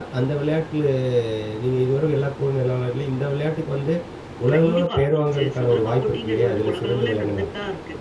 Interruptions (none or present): present